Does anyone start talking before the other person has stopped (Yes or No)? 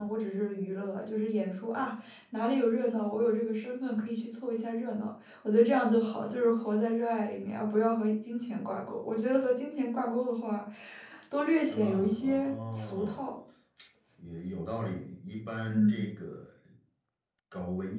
Yes